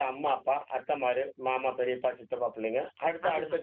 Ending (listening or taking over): listening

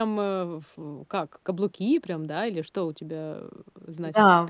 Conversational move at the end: taking over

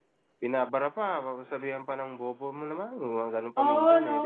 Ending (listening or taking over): taking over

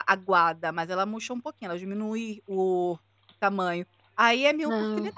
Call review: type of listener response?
listening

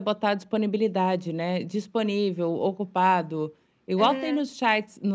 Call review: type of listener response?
listening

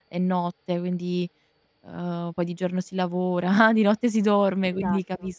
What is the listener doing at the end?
listening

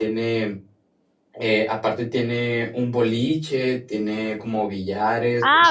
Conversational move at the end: taking over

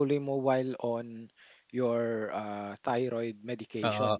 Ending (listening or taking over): taking over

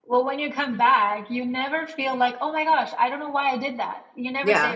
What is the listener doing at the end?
taking over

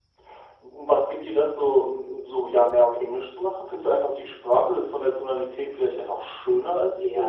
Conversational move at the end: taking over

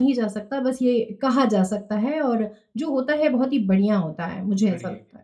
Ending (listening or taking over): taking over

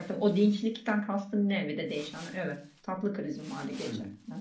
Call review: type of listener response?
taking over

